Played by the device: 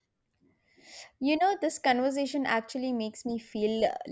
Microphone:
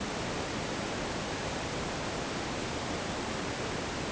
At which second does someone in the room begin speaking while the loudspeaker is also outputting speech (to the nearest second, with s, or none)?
none